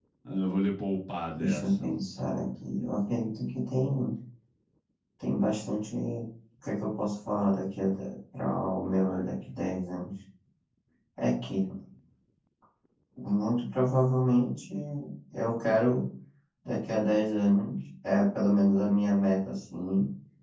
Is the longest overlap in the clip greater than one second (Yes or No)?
No